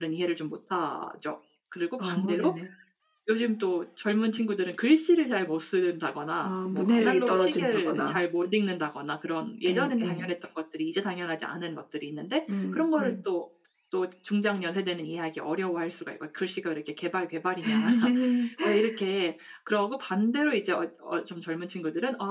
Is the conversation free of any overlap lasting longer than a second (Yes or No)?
No